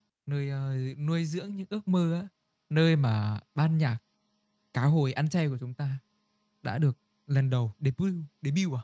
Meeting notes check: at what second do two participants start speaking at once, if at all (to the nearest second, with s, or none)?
none